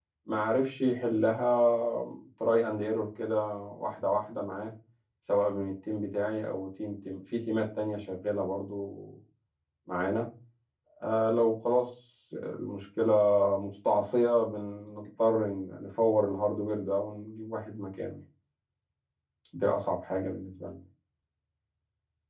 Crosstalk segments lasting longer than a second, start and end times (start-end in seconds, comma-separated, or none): none